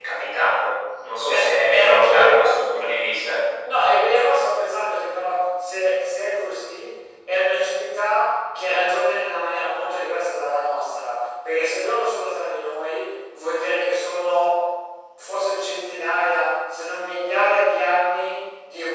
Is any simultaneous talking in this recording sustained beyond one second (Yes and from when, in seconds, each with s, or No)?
Yes, from 1.3 s